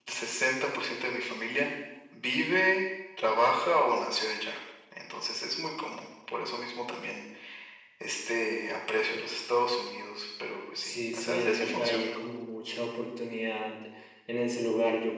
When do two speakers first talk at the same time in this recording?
10.8 s

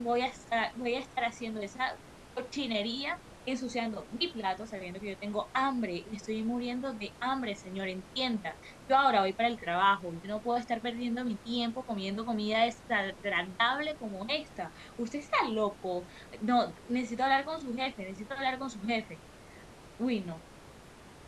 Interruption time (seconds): none

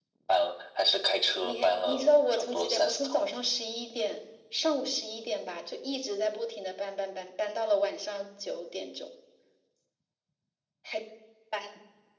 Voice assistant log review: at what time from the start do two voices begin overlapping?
1.4 s

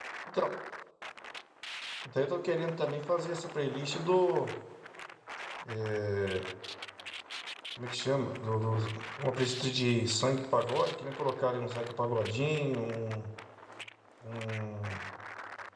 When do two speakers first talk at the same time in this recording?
none

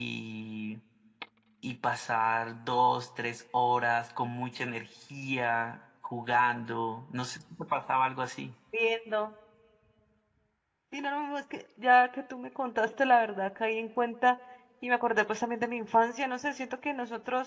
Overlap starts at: none

